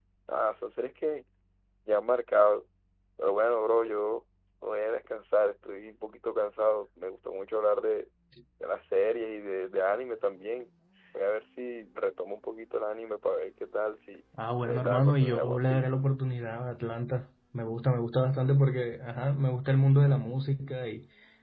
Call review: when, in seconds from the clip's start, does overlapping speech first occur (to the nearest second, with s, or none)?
15 s